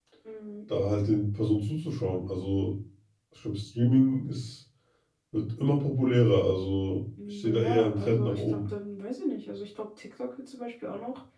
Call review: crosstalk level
present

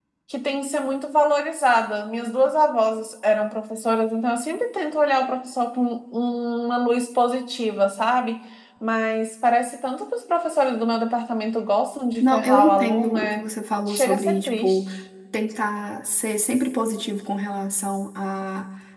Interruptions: present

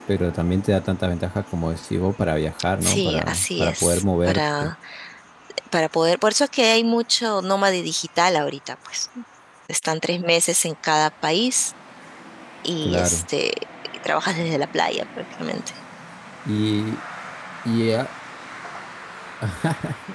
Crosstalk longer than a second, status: present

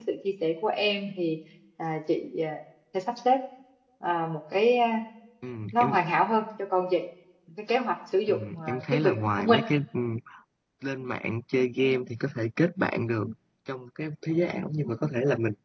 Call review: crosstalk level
present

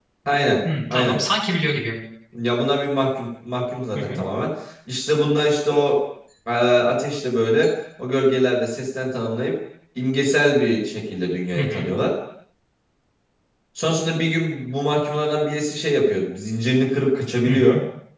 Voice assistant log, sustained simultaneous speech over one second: none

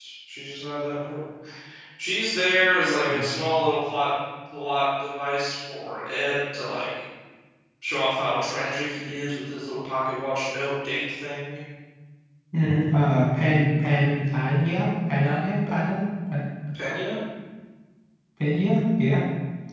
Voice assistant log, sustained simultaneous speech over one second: none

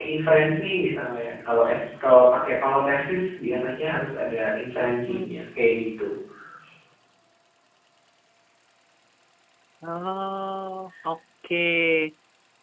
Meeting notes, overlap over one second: none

